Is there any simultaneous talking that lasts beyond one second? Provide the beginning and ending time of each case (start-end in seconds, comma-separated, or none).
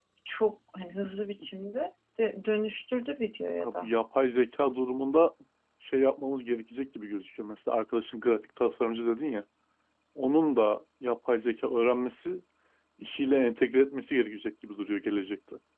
none